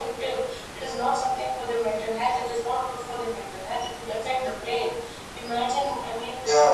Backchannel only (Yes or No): Yes